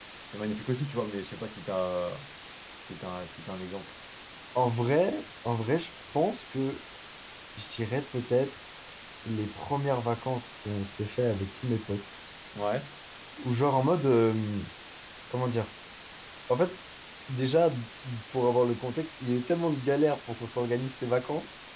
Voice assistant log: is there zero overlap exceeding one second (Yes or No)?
Yes